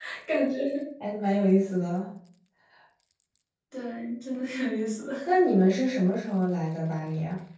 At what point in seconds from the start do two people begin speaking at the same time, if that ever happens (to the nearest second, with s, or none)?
none